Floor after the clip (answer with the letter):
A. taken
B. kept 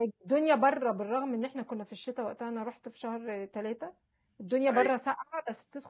B